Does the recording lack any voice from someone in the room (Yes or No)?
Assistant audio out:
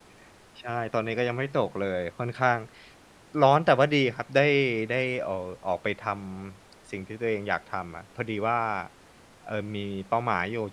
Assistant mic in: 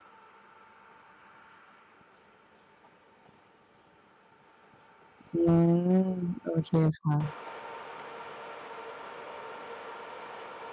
No